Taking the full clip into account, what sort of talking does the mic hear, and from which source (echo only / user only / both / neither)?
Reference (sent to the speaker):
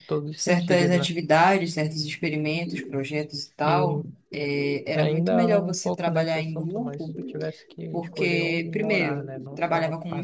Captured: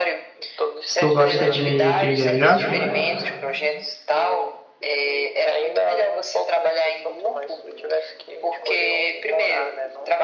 both